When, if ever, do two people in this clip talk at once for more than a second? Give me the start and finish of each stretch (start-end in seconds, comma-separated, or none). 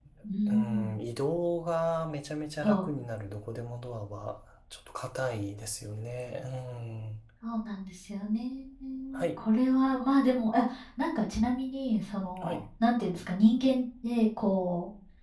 none